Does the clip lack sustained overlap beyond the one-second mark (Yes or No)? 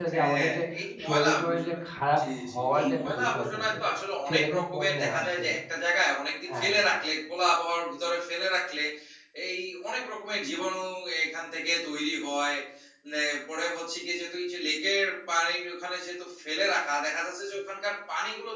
No